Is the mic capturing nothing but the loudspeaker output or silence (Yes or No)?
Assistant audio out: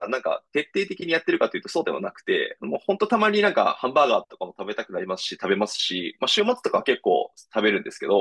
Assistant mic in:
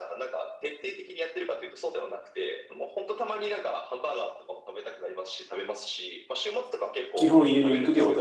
No